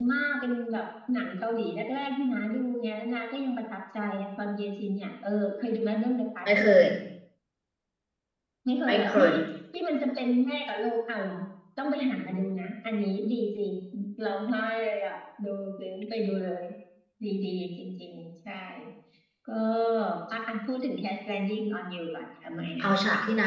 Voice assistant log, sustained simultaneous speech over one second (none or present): none